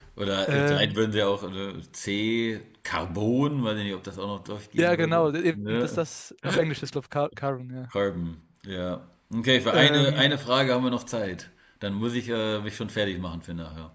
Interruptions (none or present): present